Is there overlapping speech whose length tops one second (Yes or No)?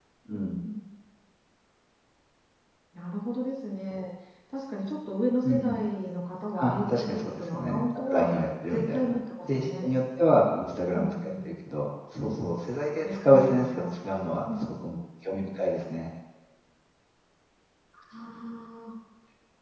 Yes